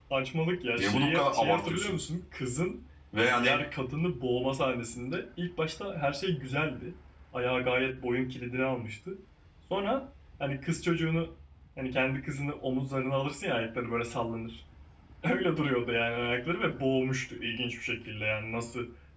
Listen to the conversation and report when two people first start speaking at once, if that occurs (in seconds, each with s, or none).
0.8 s